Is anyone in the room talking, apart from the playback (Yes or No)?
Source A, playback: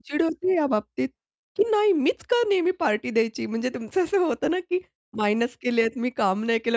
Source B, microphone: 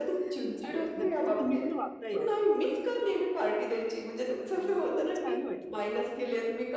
Yes